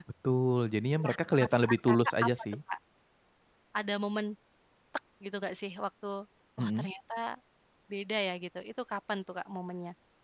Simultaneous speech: Yes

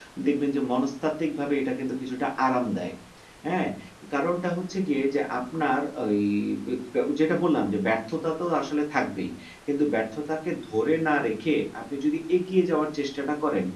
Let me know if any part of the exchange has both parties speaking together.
No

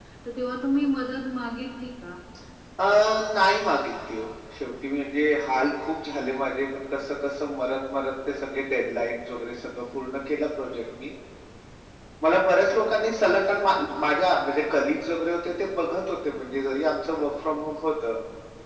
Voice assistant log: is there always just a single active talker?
Yes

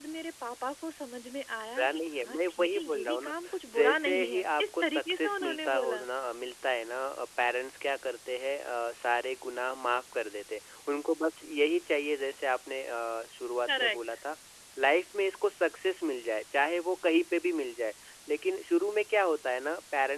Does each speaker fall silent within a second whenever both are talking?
No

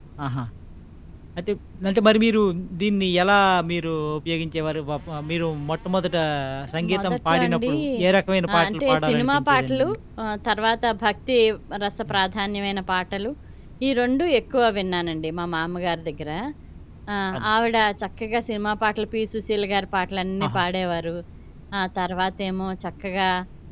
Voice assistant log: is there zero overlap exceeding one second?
No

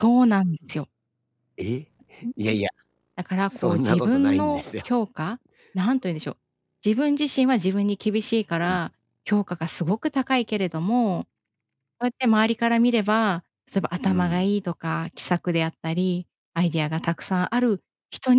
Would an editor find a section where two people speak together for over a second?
Yes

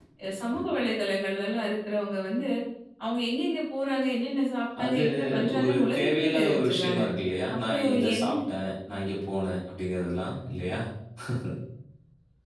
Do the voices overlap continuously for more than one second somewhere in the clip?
Yes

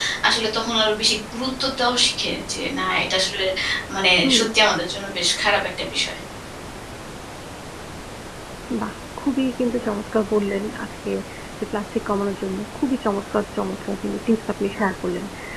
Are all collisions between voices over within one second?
Yes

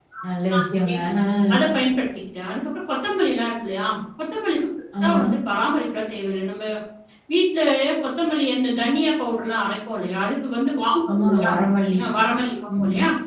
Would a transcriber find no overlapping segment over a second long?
Yes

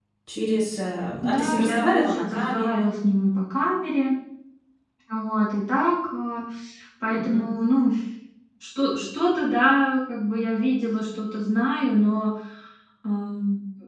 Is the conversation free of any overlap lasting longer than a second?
No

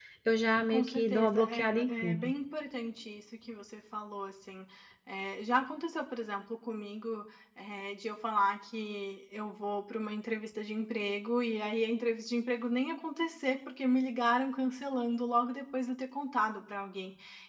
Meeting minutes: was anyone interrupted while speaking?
Yes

